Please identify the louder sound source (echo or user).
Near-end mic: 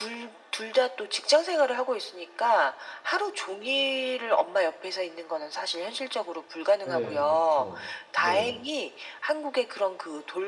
echo